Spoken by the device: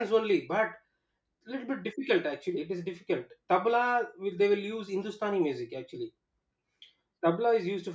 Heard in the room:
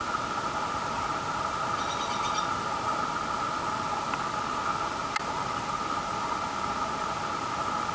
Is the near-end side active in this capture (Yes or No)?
No